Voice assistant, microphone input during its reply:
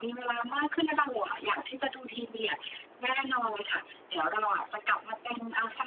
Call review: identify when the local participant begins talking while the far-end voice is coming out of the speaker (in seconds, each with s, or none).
none